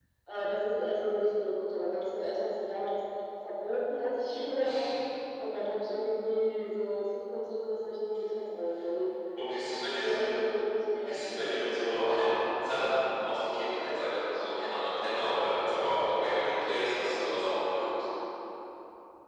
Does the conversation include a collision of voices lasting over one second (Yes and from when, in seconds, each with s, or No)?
No